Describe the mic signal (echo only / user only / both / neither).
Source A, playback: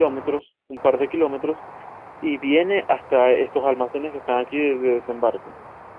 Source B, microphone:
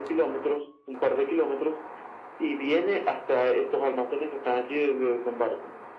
echo only